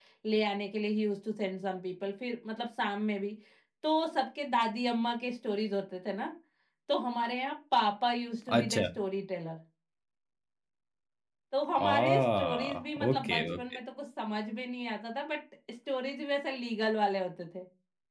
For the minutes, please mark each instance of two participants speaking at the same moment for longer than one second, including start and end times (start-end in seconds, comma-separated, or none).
11.8-13.6